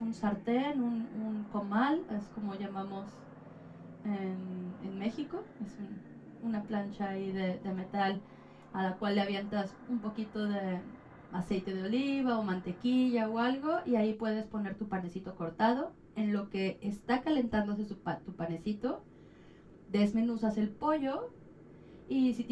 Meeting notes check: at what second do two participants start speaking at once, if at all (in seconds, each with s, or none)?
none